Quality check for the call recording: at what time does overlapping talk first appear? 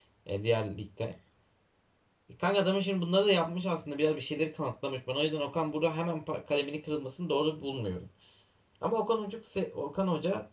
none

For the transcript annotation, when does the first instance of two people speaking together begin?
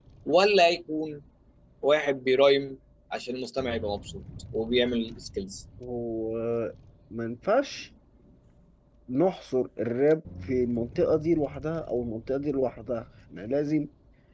none

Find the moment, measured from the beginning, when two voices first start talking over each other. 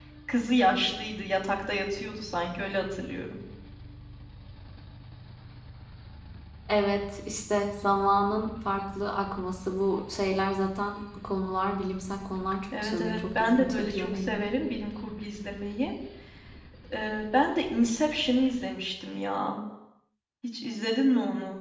13 s

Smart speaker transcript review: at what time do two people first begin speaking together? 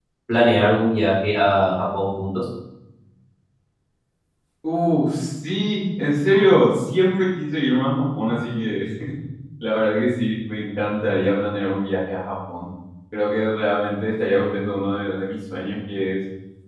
none

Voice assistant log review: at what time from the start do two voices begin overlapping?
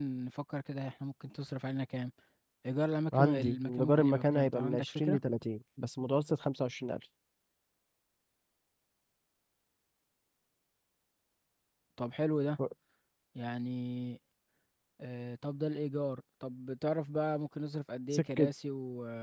3 s

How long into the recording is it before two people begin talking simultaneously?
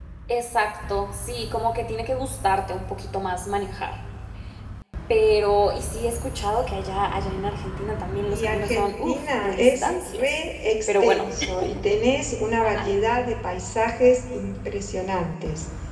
8 s

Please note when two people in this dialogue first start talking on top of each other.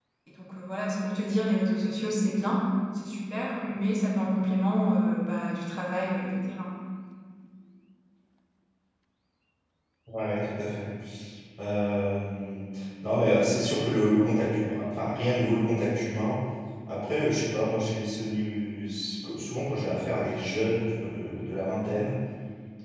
none

